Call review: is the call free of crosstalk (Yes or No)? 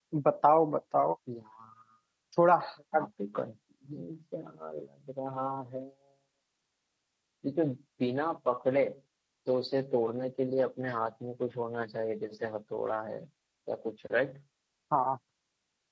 Yes